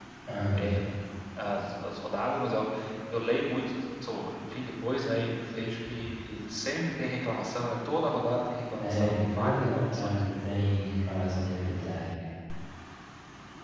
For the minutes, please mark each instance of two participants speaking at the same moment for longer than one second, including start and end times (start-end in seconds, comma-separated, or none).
8.8-10.2